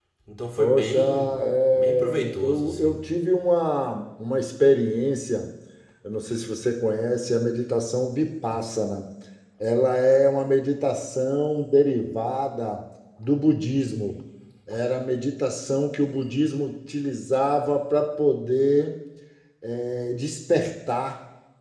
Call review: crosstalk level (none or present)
present